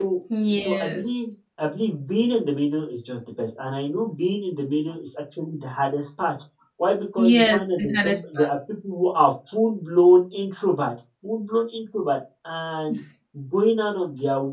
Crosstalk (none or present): present